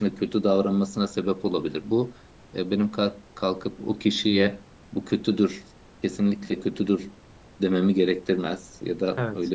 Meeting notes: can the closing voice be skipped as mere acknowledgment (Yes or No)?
Yes